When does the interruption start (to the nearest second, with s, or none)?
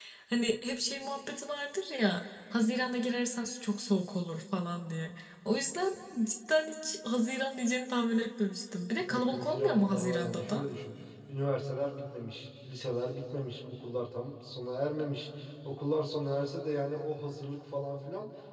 9 s